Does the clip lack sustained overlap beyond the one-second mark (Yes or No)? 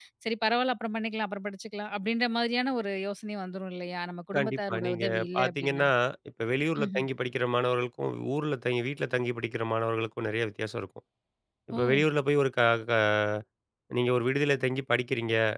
No